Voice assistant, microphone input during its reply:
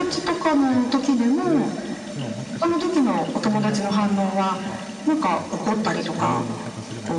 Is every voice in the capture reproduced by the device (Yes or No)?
No